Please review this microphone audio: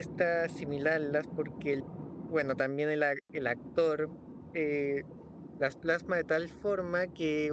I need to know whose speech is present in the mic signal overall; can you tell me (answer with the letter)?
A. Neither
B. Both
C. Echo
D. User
D